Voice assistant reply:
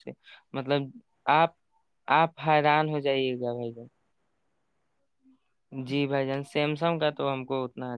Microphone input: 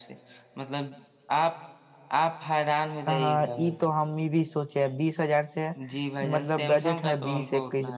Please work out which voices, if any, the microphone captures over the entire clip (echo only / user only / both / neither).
both